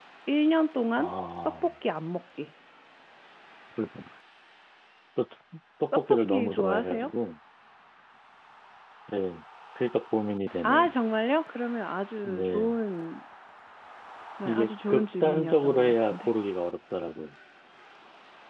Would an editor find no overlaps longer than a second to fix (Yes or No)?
No